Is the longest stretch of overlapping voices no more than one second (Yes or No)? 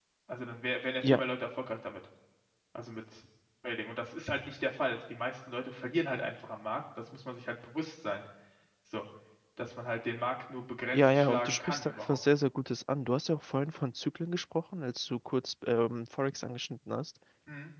No